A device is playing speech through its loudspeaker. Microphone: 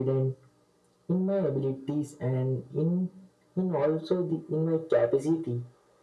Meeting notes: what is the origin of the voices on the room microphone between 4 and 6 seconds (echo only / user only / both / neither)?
echo only